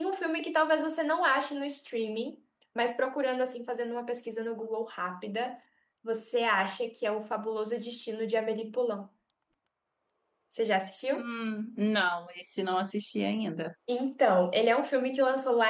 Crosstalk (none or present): none